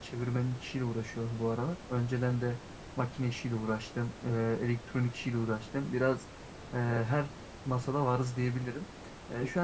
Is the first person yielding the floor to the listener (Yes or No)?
No